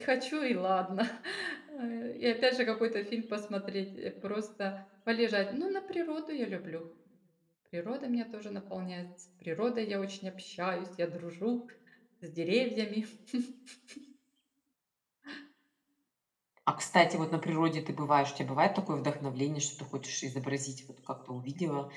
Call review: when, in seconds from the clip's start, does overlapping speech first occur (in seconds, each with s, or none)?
none